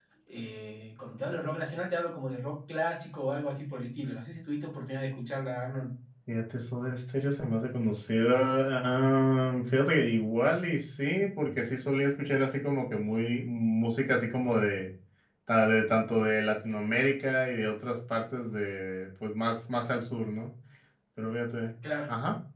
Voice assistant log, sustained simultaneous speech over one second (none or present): none